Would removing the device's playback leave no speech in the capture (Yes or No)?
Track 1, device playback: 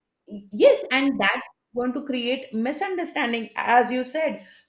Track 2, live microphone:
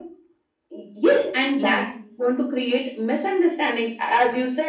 No